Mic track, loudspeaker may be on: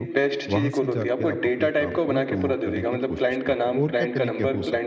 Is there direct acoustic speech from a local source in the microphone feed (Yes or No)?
Yes